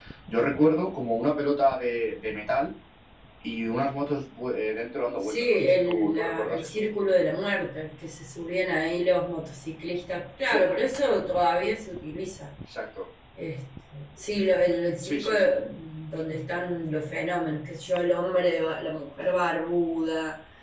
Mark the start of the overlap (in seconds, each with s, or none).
5.2 s